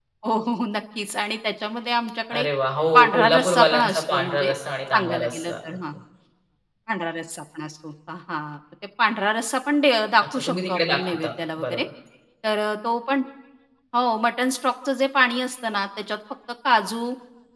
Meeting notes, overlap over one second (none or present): present